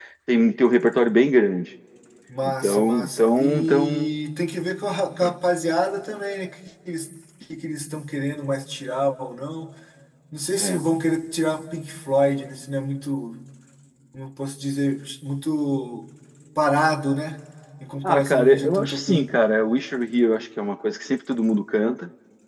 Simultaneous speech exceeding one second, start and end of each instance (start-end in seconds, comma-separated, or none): 2.4-4.1, 18.0-19.3